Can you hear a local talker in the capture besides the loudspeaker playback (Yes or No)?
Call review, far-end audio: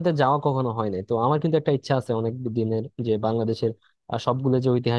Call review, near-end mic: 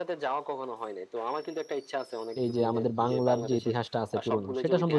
Yes